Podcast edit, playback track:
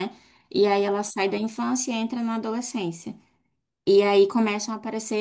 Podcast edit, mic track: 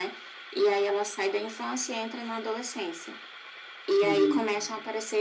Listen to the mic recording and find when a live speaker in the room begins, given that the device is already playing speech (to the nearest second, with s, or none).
4 s